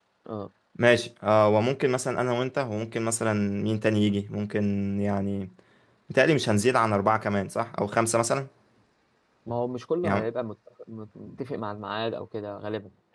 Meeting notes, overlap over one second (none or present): none